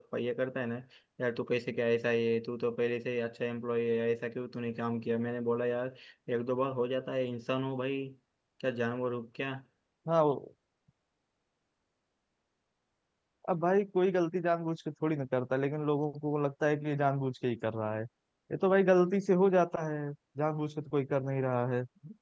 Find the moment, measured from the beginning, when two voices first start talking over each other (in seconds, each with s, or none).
none